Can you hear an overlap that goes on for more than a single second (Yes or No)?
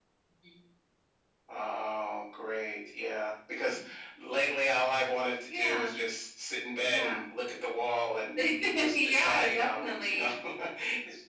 Yes